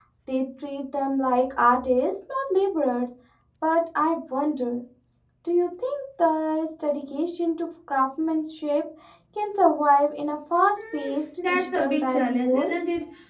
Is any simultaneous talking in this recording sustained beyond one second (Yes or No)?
Yes